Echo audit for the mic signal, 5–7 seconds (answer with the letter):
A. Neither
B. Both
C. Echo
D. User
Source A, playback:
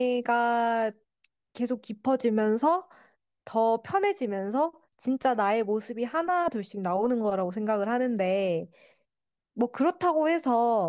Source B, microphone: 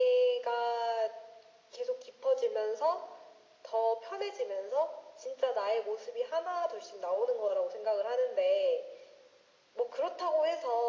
C